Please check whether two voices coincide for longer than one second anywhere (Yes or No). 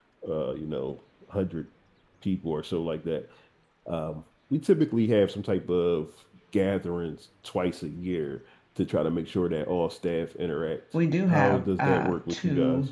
Yes